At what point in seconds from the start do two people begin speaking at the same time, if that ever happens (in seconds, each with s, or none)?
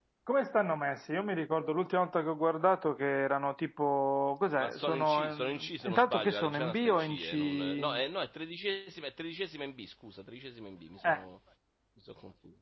4.5 s